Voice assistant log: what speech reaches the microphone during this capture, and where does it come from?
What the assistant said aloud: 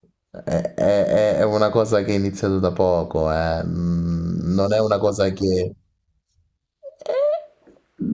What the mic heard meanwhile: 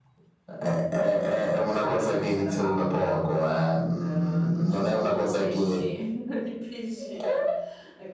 both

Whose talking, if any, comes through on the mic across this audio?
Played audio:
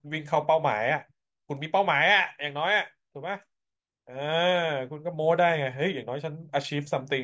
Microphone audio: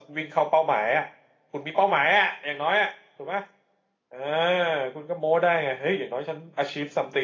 echo only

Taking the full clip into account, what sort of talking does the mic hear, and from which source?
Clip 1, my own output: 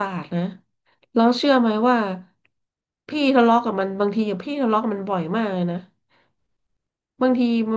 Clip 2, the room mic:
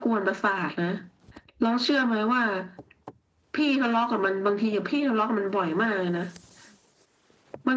echo only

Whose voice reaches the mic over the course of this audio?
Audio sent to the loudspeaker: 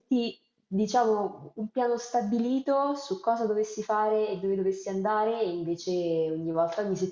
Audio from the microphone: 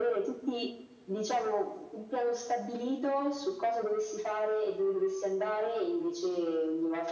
echo only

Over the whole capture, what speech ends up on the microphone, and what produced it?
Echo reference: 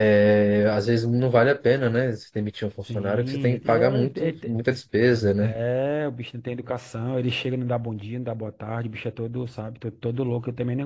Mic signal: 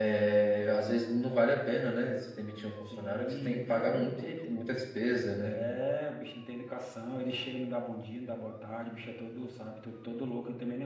echo only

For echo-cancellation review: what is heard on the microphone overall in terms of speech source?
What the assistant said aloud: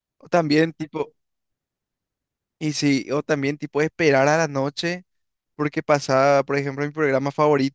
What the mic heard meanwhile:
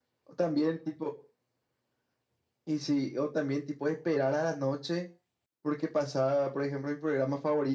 echo only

